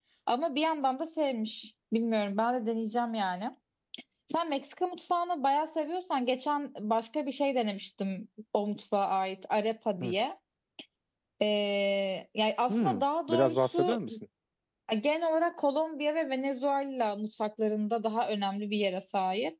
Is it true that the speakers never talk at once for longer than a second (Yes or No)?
No